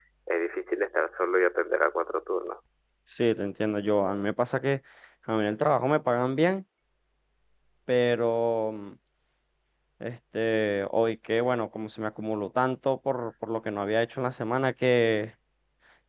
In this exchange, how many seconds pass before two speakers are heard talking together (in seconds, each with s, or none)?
none